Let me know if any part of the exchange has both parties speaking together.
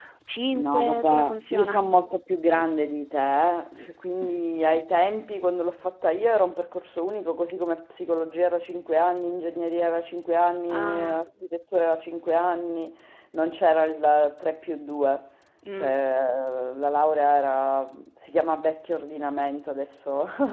Yes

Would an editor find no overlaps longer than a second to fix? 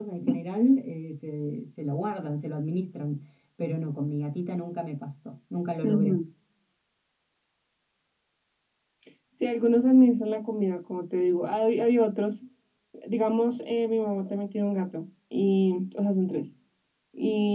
Yes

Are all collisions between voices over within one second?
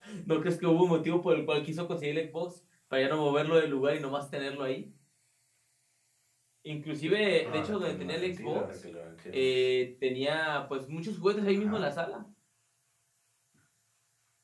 No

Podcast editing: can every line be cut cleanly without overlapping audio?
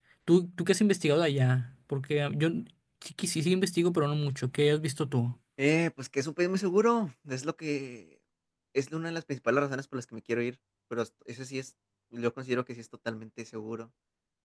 Yes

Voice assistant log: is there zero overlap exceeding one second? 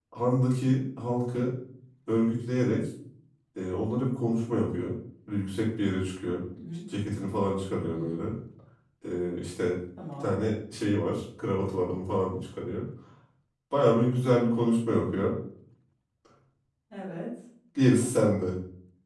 Yes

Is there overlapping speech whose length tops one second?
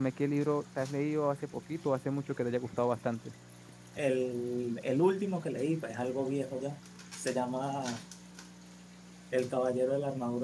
No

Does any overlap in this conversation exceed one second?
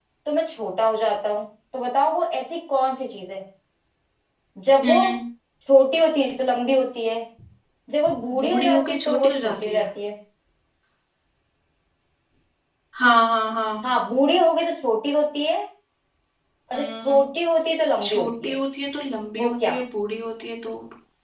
Yes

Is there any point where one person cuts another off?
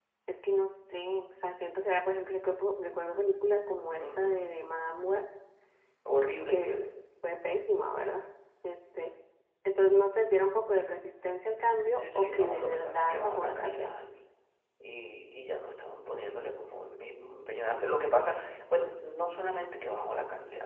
Yes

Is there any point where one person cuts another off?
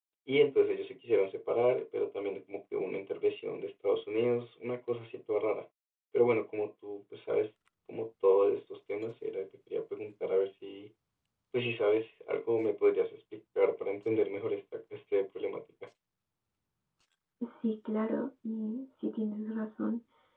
No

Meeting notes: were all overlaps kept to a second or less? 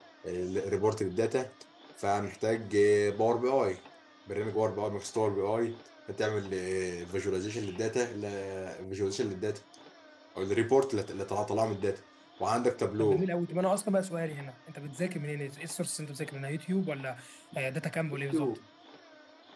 Yes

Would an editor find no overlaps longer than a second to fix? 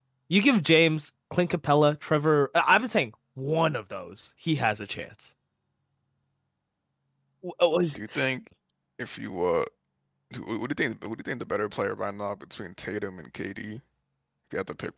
Yes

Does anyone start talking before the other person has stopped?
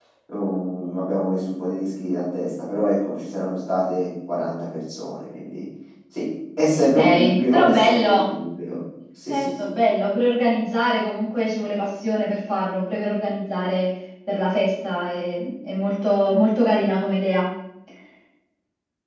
Yes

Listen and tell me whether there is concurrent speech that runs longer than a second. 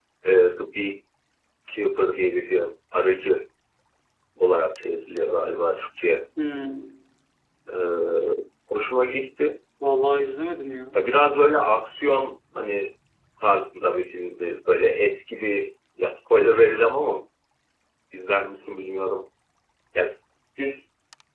No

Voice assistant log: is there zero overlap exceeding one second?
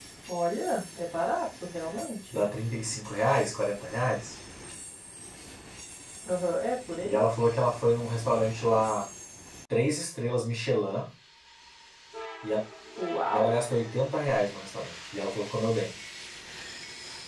Yes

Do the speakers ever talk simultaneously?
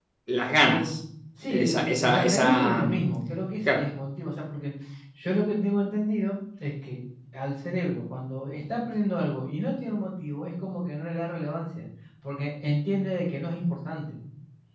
Yes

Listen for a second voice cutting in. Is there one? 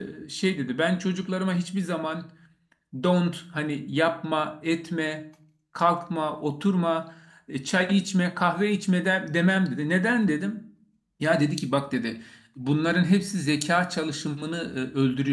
No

